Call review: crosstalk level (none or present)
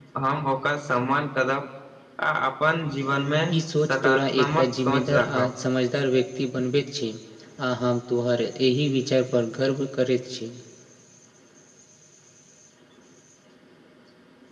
present